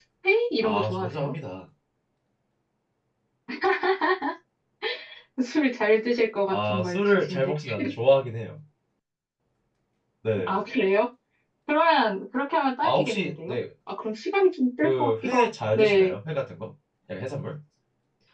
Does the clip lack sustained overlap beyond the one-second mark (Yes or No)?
No